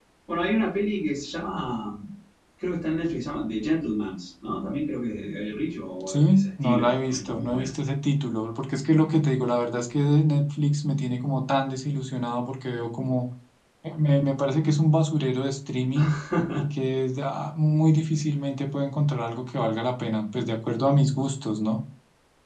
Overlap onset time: 6.1 s

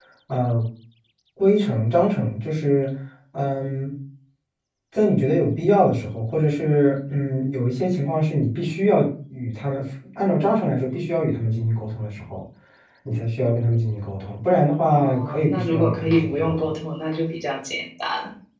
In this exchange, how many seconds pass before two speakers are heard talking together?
14.9 s

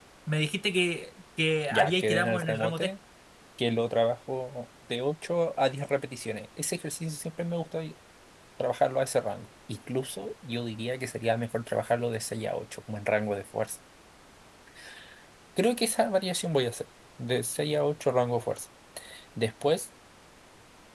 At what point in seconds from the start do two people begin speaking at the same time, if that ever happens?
1.7 s

